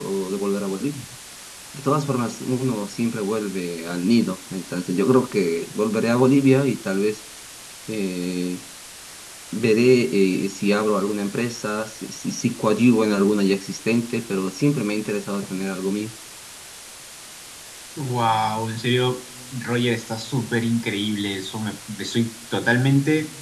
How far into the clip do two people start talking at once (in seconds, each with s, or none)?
none